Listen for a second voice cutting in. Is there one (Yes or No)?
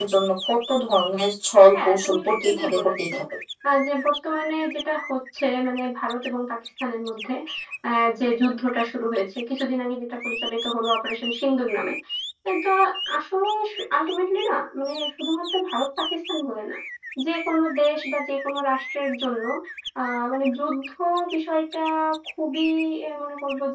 Yes